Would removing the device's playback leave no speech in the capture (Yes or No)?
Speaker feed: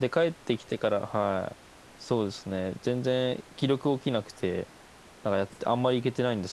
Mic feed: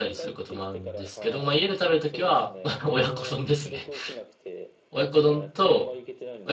No